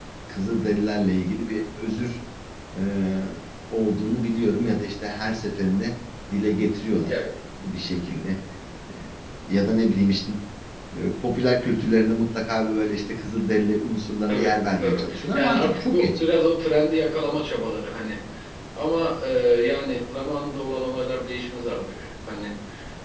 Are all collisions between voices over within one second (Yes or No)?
No